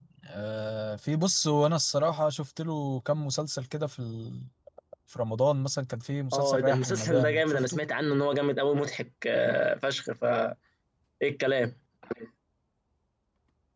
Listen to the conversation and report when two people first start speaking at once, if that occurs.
6 s

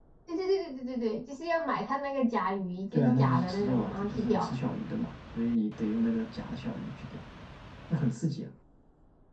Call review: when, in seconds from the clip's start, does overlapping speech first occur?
3 s

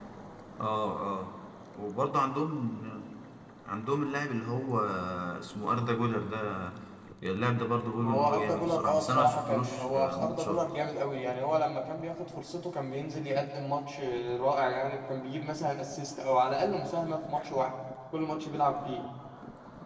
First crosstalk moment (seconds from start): 8 s

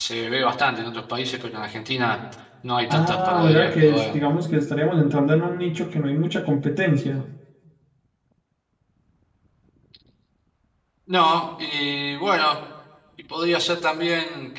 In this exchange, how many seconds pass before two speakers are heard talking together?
3 s

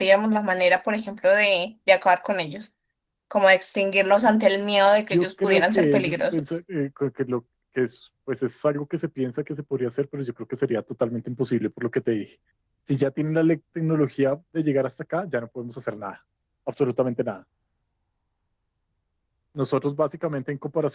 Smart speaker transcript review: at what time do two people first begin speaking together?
5 s

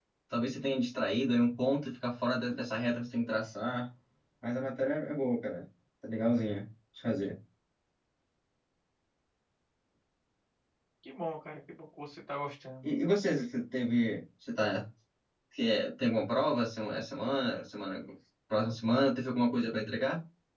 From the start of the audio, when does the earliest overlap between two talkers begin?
none

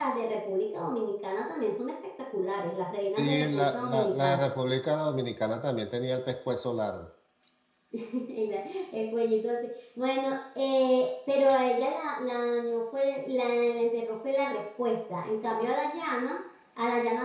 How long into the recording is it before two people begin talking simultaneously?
3 s

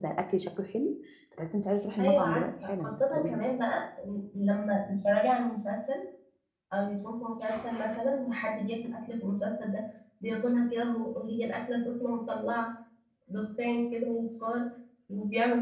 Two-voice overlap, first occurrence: 2 s

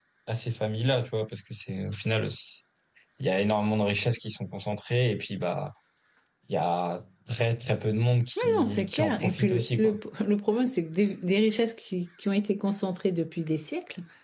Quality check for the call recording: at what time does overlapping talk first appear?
8 s

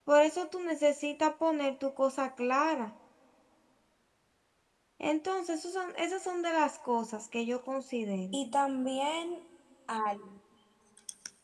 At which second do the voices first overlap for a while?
none

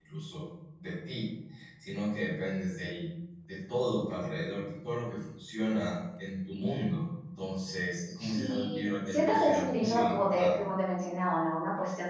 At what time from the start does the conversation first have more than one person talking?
8 s

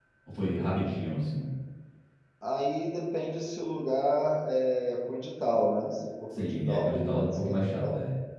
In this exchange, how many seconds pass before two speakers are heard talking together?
6 s

